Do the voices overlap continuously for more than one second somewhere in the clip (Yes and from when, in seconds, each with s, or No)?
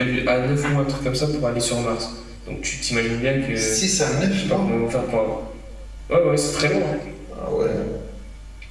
No